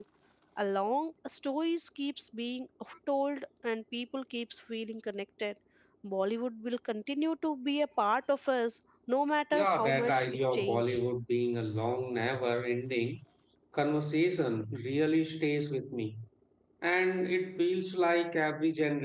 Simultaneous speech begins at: 9.5 s

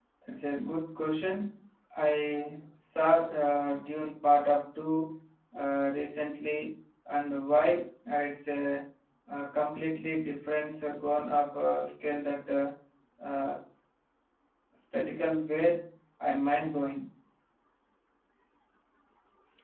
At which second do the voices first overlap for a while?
none

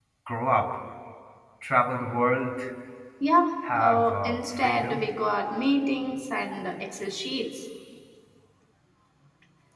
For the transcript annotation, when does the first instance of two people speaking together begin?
3.7 s

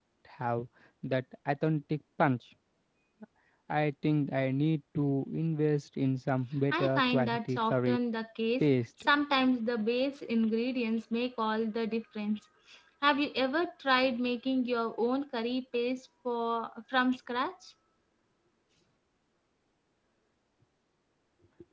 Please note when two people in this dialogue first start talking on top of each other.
6.7 s

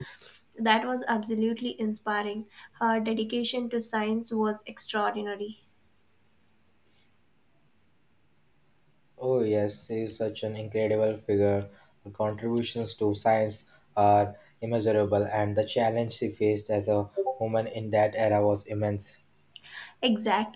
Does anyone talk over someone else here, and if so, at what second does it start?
none

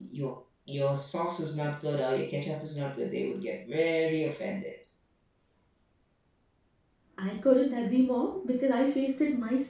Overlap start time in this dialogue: none

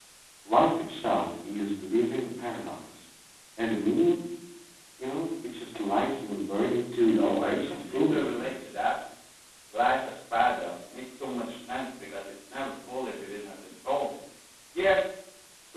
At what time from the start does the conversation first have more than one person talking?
7.1 s

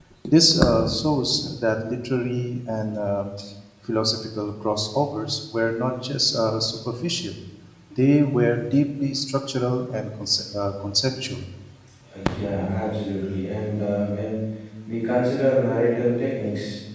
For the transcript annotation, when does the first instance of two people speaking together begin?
none

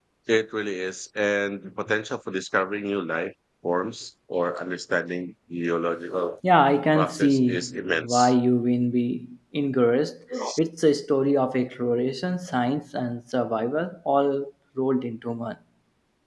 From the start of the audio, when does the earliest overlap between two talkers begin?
6.9 s

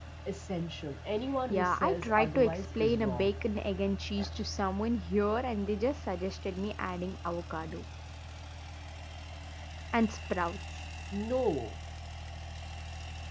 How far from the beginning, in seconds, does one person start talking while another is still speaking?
1.5 s

